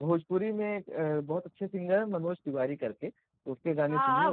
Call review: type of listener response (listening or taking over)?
taking over